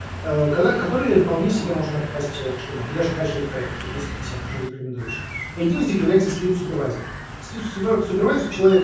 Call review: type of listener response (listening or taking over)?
listening